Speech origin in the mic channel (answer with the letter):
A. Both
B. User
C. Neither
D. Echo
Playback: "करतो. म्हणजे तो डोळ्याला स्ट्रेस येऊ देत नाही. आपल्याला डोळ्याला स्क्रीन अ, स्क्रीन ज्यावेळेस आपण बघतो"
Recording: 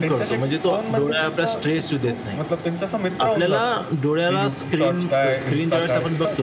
A